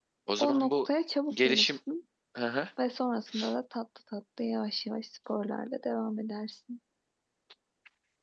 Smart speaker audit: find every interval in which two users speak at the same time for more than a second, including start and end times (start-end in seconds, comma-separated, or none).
none